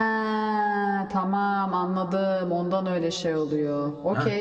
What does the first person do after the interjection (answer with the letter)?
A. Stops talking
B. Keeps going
A